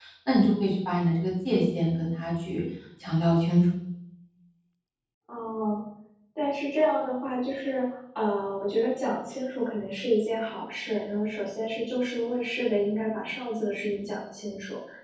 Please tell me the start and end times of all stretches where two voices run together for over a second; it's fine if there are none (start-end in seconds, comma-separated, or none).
none